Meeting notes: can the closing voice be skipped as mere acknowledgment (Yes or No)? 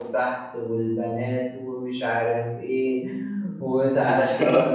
Yes